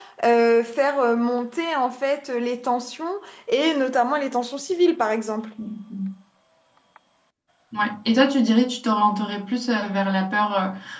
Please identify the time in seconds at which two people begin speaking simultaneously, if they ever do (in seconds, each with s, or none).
none